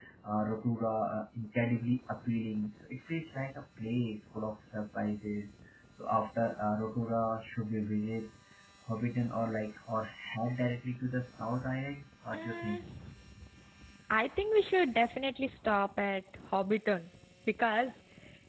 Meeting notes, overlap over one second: none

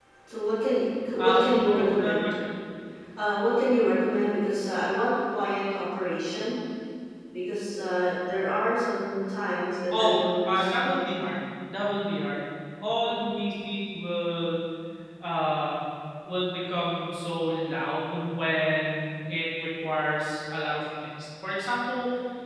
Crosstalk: present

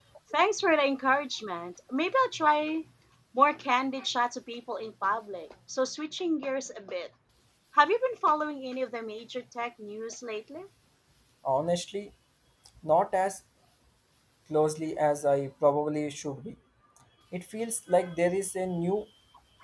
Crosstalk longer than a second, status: none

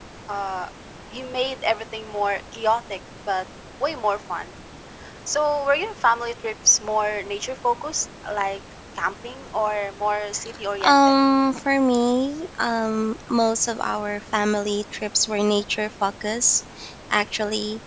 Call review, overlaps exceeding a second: none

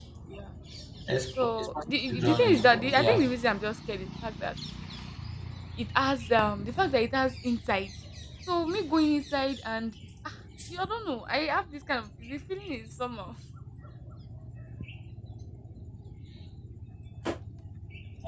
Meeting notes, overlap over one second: present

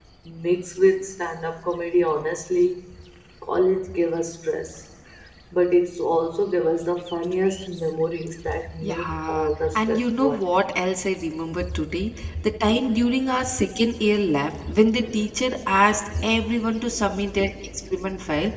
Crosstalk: present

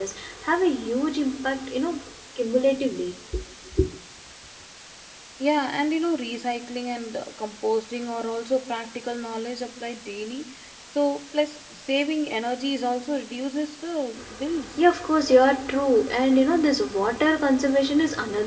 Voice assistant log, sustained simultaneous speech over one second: none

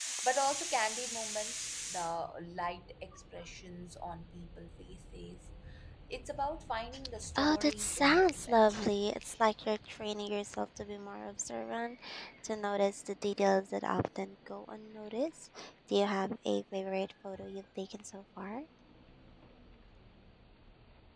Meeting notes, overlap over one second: present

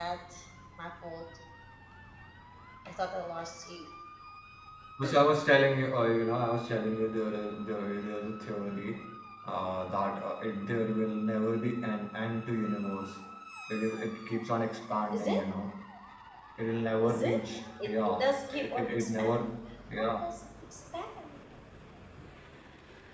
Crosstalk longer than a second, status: present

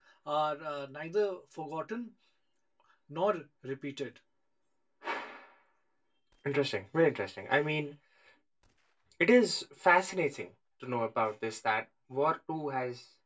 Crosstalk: none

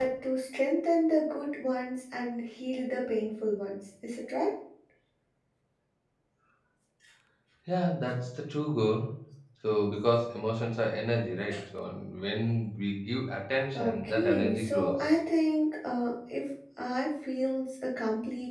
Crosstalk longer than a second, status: present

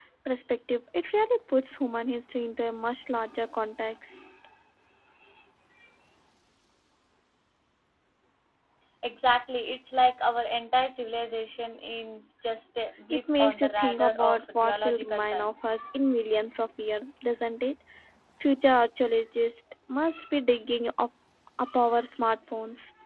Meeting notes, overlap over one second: present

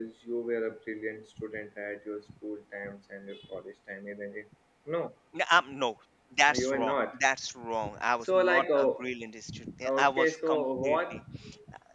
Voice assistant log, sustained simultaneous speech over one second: present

